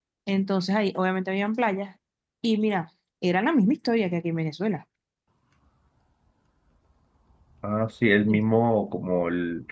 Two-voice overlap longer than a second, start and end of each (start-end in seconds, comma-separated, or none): none